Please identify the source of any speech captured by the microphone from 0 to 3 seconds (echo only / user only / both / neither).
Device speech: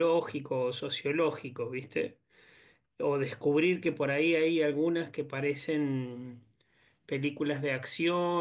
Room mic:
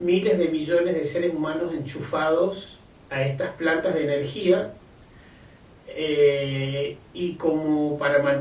user only